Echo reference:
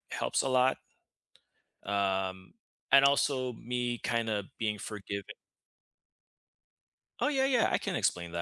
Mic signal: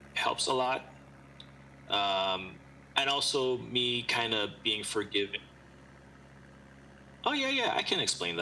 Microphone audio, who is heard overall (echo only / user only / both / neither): echo only